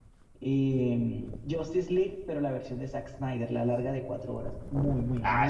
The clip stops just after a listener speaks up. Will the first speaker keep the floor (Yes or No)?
No